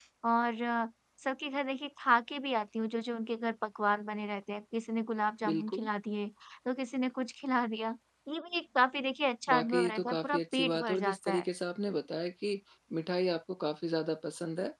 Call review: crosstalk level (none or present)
present